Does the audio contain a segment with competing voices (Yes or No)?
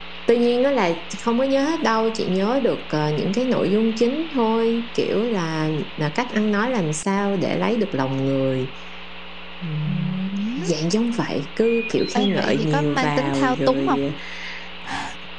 Yes